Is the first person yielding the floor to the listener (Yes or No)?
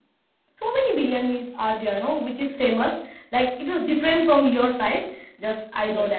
No